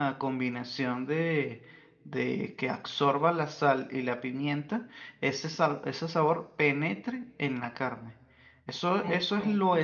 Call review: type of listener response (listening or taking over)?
listening